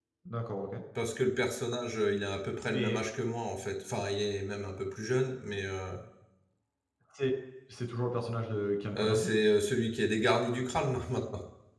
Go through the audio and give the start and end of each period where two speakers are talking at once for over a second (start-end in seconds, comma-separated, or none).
none